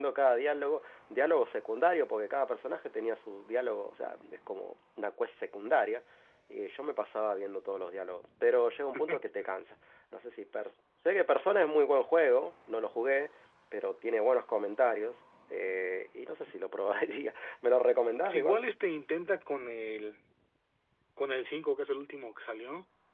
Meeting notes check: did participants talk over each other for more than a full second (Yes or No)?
No